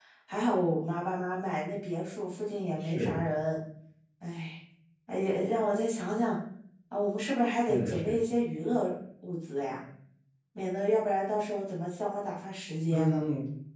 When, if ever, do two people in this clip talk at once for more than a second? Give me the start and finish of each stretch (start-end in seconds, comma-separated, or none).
none